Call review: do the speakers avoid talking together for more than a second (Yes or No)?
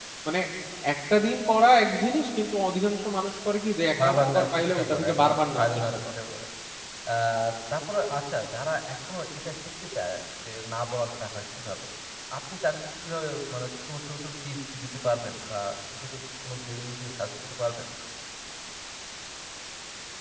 No